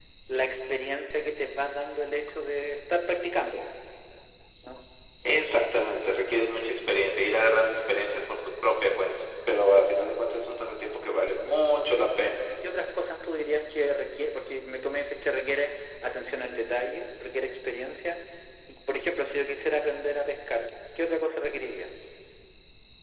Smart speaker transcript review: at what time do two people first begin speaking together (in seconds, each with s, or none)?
none